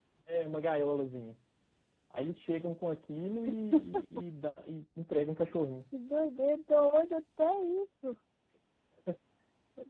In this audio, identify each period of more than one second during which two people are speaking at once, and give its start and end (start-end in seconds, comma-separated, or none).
none